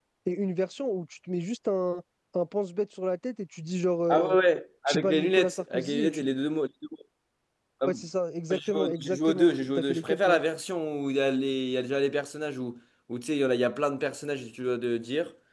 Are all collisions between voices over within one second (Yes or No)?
No